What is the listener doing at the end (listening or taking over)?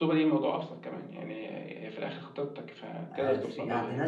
taking over